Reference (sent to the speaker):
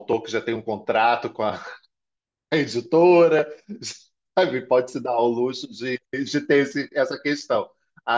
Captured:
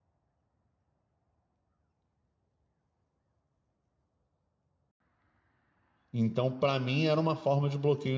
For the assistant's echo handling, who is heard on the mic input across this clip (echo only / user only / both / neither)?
user only